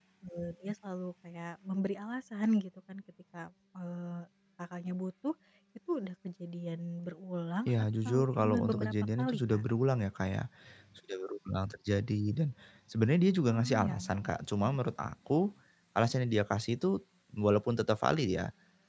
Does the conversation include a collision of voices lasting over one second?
Yes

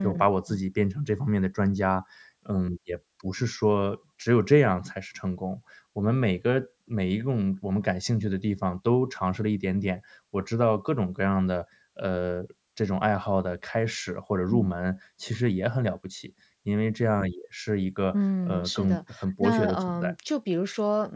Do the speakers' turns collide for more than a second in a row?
Yes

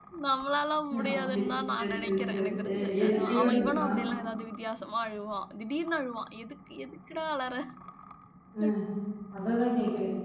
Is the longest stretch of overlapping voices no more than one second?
No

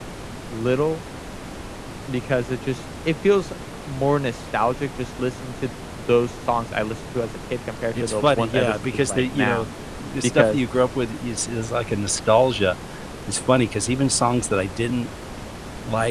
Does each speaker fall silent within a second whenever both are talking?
No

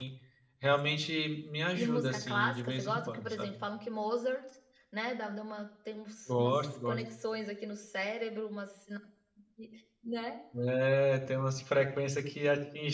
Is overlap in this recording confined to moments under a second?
No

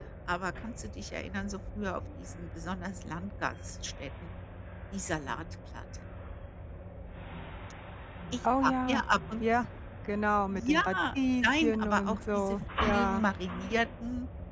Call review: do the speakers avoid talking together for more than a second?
No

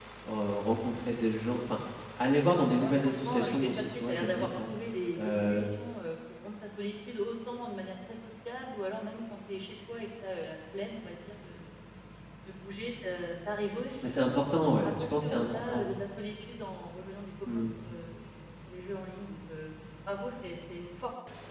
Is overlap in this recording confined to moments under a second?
No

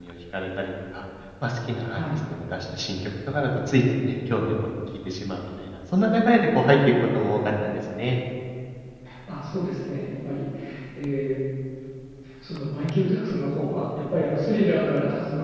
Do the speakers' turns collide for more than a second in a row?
No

